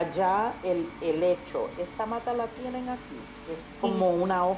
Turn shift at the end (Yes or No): No